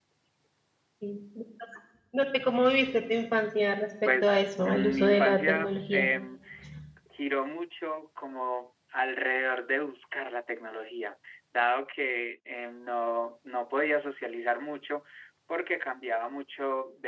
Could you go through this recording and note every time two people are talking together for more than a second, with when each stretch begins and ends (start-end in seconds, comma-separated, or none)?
4.0-6.1